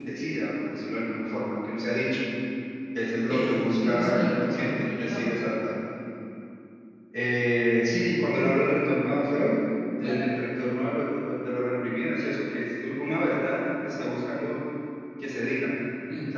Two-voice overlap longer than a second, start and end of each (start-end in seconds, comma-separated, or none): 3.3-5.2